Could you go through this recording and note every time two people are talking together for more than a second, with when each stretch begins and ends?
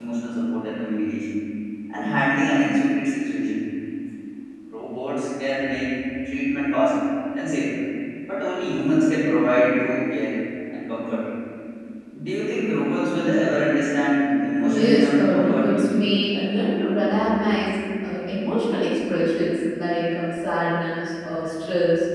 14.6-16.0

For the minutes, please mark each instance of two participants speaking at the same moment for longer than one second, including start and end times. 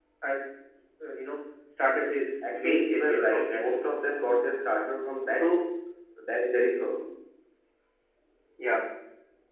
2.5-3.9

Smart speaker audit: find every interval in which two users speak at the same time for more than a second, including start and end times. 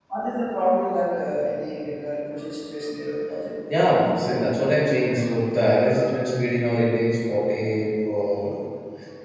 none

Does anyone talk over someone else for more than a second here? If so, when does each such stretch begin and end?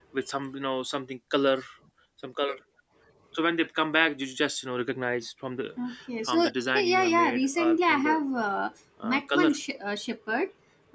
6.3-8.2

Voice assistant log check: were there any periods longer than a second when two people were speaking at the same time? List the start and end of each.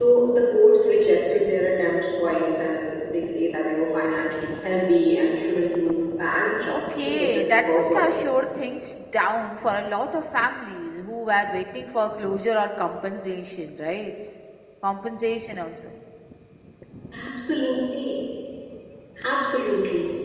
6.7-8.1

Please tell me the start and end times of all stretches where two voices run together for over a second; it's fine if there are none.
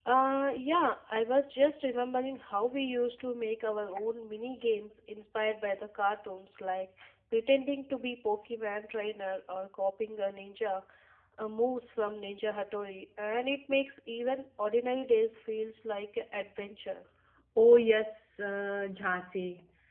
none

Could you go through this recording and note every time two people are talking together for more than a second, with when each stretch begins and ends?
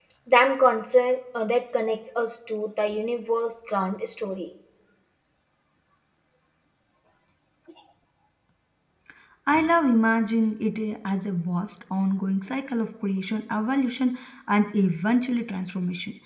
none

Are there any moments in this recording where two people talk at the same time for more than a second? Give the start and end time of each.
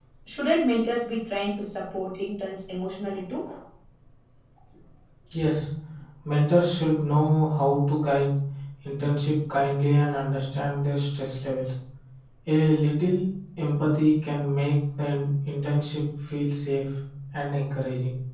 none

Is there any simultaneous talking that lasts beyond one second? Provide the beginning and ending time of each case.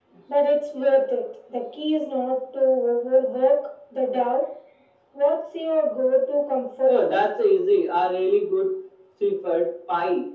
none

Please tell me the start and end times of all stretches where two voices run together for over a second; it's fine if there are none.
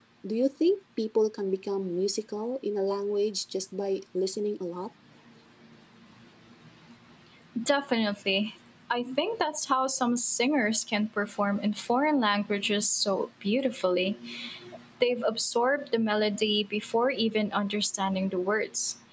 none

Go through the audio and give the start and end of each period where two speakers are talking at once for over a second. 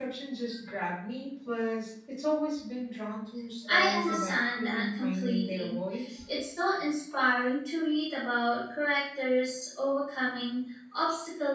3.7-5.8

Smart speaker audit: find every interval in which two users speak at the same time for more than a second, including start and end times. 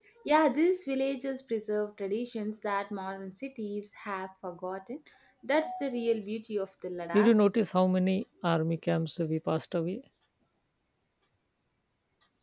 none

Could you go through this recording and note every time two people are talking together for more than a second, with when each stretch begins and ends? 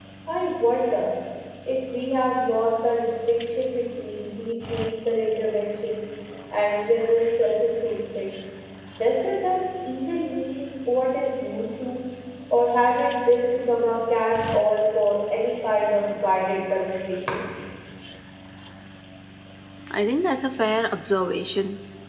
none

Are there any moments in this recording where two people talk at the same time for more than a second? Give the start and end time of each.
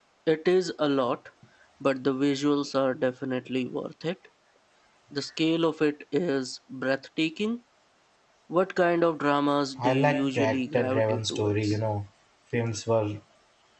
9.8-11.8

